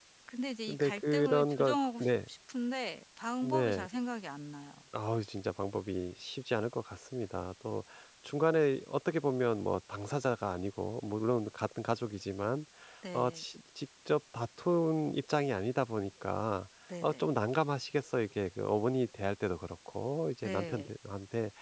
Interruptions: present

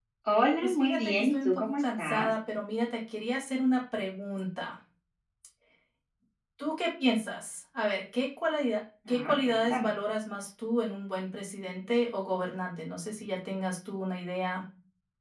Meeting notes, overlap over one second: present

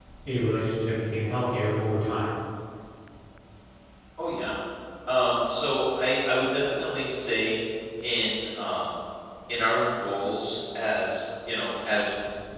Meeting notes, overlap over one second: none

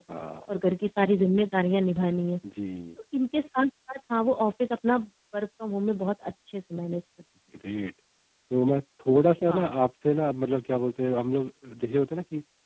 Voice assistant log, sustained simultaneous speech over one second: none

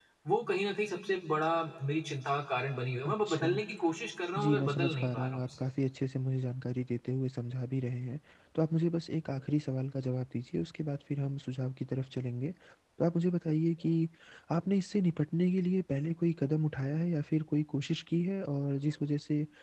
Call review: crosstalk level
present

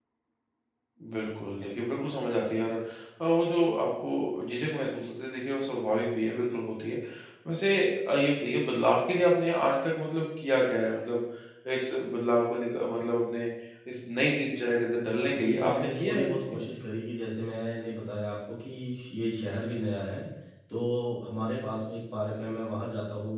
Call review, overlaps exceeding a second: present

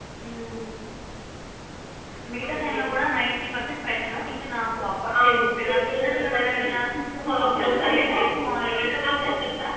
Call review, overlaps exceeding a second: present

